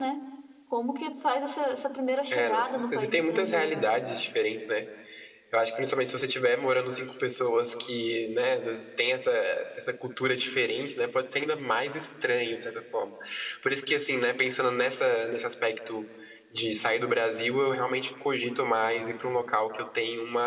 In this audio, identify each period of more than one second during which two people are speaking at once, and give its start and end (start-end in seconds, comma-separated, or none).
2.3-4.0